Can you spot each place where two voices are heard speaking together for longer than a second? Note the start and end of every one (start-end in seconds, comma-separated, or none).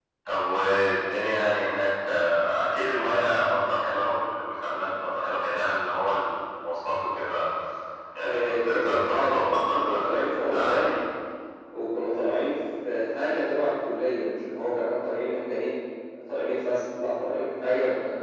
8.2-10.9